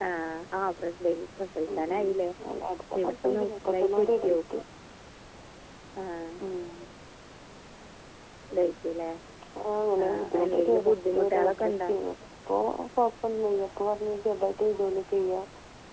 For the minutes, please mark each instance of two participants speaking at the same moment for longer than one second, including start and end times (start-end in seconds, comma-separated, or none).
3.0-4.4, 10.1-11.9